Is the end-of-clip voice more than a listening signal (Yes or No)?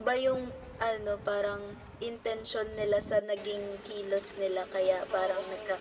No